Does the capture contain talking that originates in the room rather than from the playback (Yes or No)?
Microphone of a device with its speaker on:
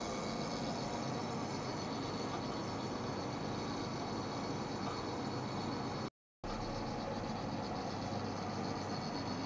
No